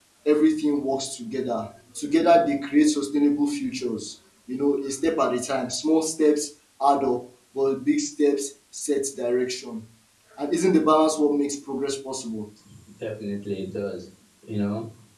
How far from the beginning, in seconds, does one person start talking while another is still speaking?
none

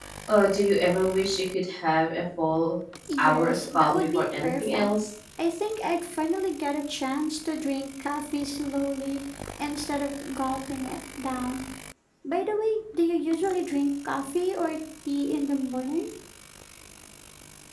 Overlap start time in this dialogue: 3 s

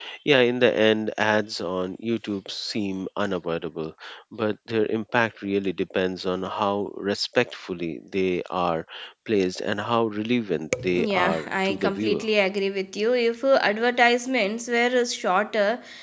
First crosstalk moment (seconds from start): 11 s

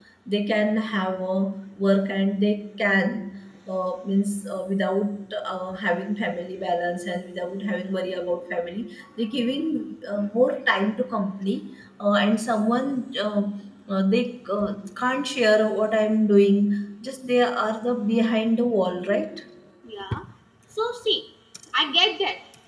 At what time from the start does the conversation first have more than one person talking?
none

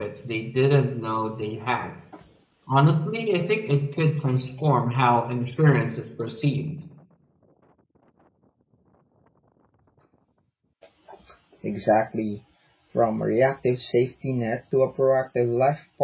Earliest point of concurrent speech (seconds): none

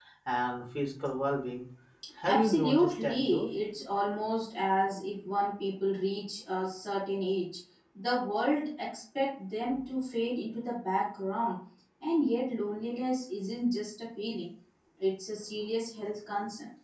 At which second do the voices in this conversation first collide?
2 s

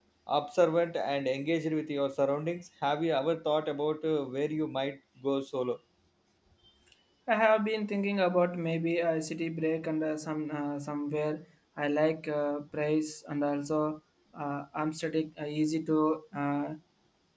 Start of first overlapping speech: none

